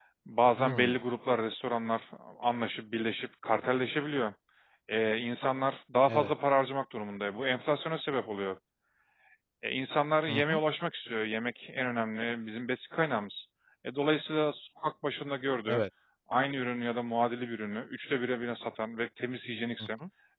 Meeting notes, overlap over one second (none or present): none